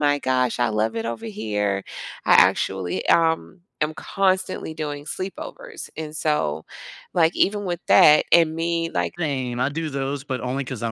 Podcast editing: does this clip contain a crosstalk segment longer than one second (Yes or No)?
No